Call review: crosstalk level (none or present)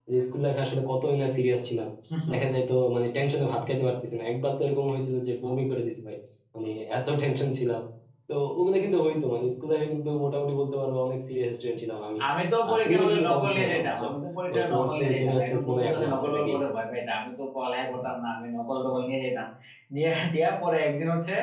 present